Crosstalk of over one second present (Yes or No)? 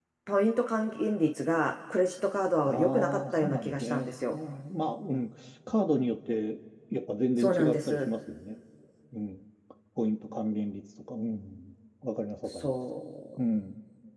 Yes